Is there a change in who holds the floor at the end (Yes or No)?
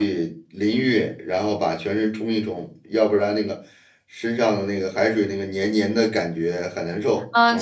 Yes